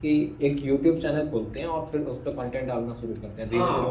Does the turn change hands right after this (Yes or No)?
Yes